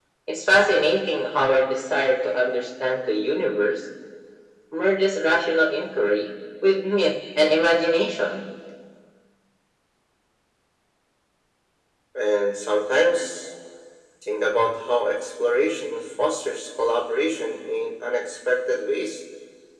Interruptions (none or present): none